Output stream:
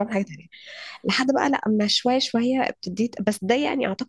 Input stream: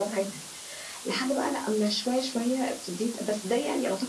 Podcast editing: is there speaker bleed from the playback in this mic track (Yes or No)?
Yes